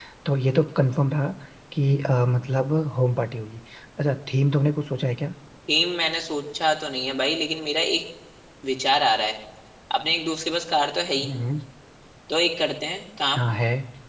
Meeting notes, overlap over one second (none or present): none